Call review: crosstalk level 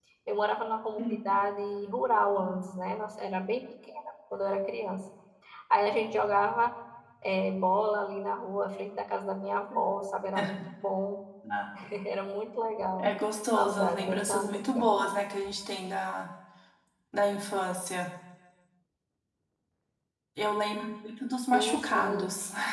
present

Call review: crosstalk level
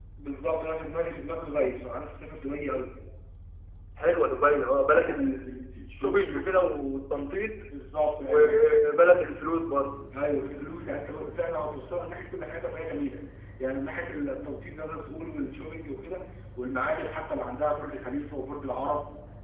present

